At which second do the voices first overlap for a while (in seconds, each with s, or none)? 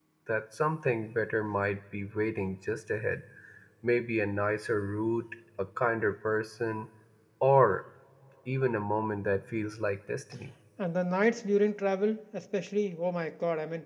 none